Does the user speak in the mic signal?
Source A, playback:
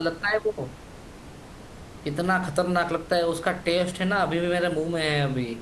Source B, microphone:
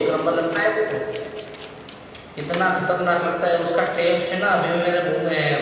No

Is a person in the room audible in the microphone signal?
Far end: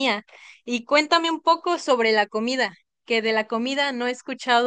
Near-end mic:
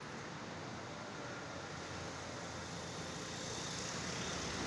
No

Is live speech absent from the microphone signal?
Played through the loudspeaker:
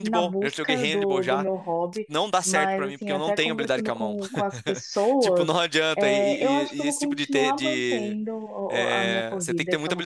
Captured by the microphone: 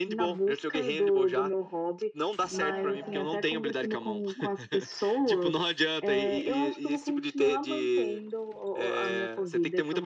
No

